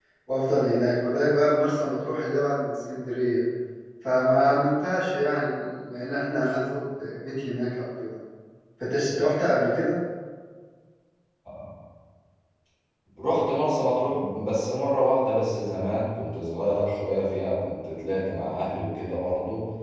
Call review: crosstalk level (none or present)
none